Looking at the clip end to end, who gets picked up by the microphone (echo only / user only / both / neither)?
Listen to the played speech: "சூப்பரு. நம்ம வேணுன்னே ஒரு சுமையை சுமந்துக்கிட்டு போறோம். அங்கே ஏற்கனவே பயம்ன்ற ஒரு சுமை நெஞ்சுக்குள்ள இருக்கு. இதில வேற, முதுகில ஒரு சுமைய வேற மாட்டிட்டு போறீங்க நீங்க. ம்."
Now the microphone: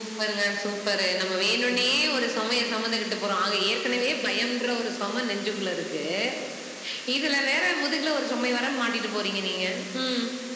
echo only